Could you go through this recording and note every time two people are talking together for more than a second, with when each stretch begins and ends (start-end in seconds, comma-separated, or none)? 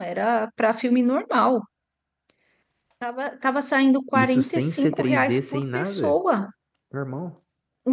4.1-6.2